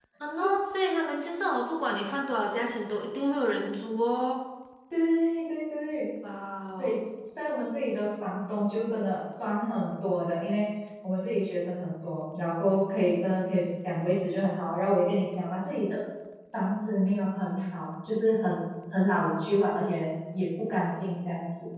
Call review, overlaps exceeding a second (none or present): none